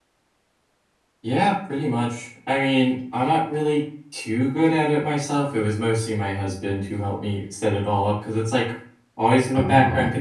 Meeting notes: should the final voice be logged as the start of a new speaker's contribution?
No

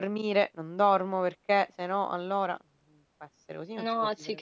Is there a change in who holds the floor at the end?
Yes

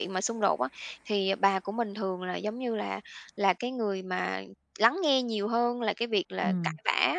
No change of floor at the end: Yes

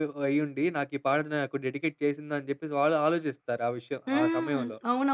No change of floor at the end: No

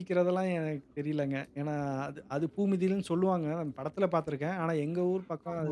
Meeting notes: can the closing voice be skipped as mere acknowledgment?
Yes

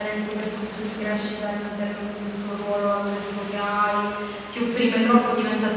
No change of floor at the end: Yes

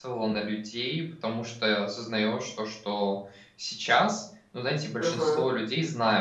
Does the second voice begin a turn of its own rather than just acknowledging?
No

